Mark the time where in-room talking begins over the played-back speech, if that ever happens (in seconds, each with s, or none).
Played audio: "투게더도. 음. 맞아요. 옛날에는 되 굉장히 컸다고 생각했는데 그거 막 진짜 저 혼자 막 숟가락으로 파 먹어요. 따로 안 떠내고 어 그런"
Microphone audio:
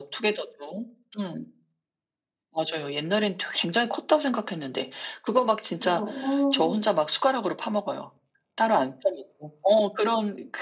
5.8 s